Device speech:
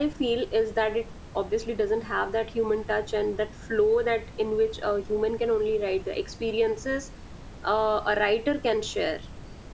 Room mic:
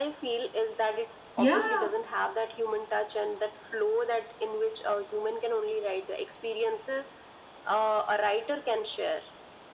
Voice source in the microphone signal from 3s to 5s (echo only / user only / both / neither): echo only